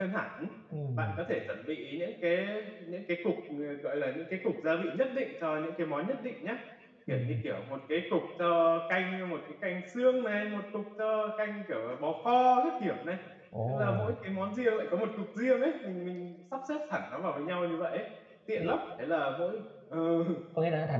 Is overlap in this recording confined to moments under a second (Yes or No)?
Yes